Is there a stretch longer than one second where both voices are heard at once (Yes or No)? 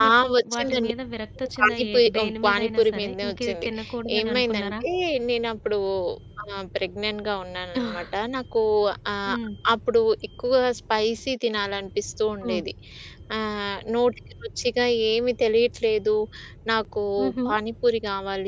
Yes